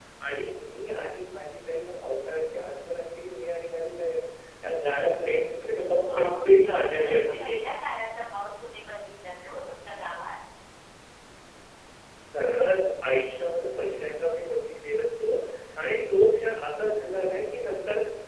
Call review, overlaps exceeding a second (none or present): present